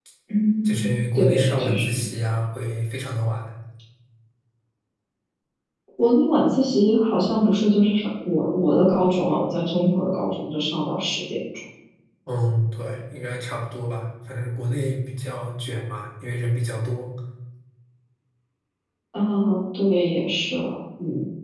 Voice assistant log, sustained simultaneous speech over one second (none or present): present